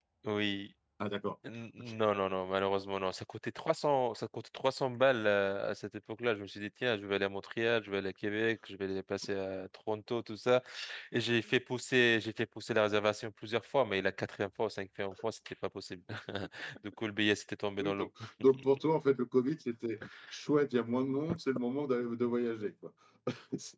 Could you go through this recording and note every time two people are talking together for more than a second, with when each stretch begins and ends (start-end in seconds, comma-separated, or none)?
none